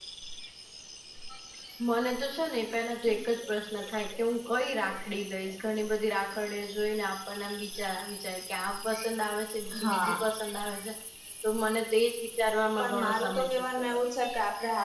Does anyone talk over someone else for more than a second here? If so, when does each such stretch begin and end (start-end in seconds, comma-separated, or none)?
12.8-14.0